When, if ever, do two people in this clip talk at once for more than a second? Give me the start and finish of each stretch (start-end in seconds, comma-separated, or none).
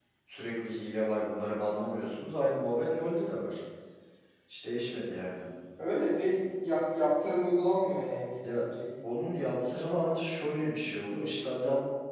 none